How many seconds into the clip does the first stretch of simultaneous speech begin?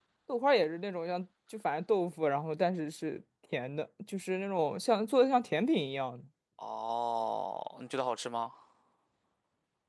none

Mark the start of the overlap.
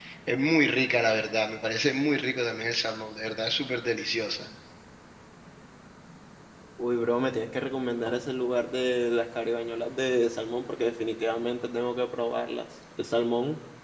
none

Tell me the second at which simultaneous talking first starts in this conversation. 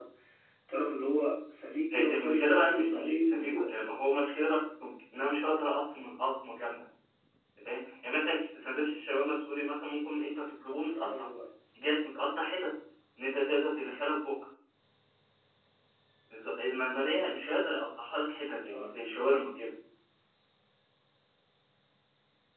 1.9 s

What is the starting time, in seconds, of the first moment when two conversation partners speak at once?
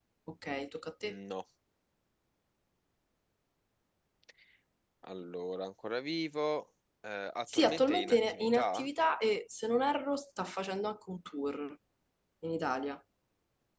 7.5 s

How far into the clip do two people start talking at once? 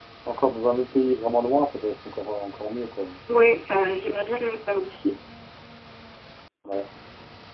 none

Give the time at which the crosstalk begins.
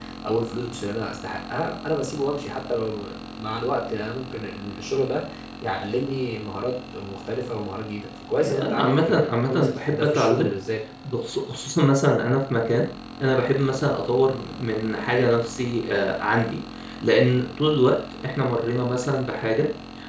8.4 s

